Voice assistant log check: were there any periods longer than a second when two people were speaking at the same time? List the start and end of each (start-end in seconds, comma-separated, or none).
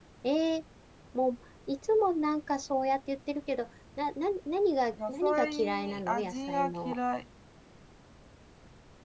5.1-7.0